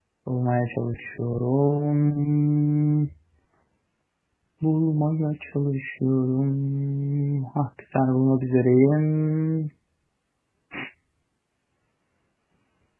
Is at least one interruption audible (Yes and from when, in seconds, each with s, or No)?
No